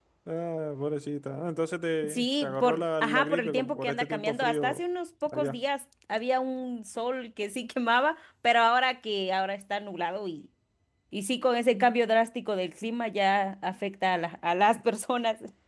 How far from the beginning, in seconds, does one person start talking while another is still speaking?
2.1 s

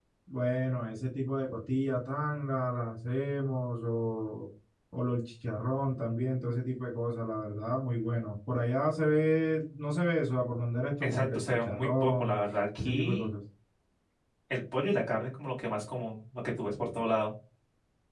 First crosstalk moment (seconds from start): 11.0 s

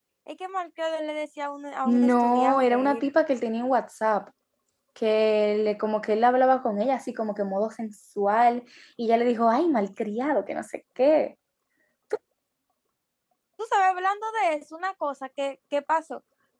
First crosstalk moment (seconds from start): 1.9 s

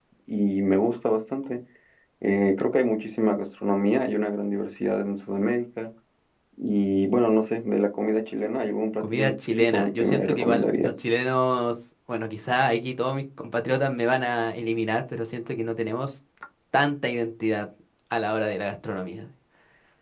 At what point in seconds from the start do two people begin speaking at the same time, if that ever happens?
9.0 s

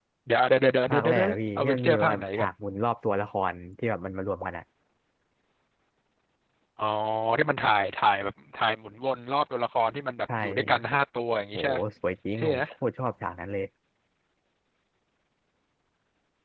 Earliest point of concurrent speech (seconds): 0.9 s

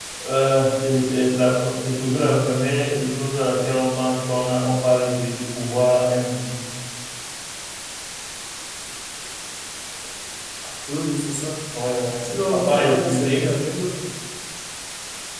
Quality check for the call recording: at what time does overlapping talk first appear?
12.2 s

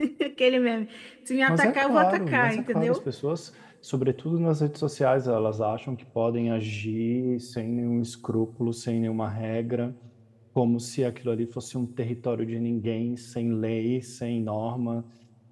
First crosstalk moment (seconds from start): 1.5 s

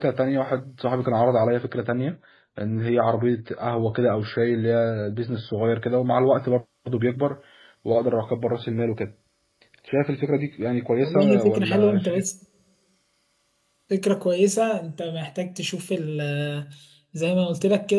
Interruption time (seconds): 11.0 s

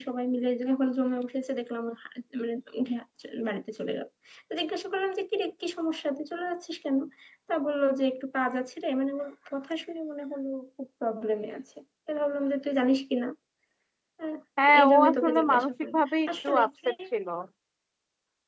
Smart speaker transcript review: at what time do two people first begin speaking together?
14.8 s

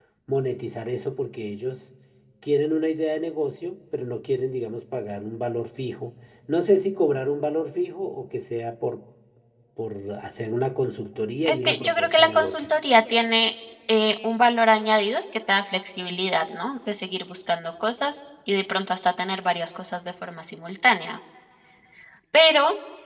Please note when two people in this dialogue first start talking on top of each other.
11.4 s

